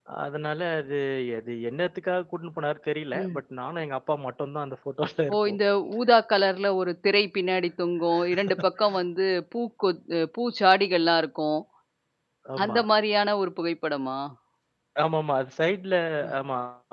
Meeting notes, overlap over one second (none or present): none